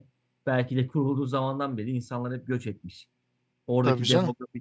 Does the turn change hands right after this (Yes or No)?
No